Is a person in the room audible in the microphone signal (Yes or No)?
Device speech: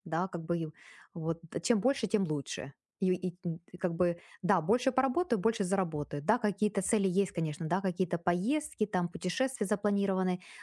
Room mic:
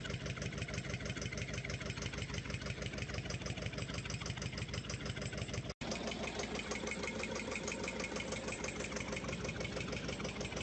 No